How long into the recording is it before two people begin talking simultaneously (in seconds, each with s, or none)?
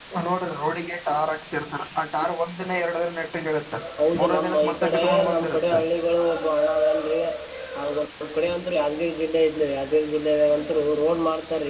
4.2 s